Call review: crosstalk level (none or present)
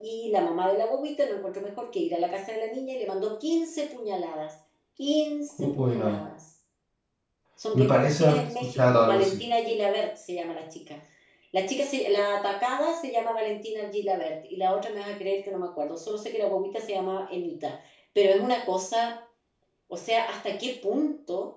present